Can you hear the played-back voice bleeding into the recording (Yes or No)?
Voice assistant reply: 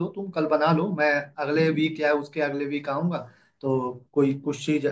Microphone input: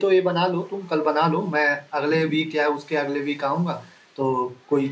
Yes